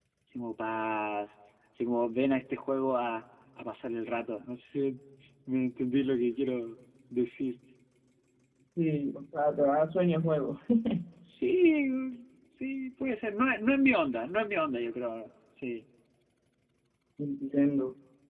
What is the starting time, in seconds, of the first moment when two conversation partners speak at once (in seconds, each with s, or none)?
none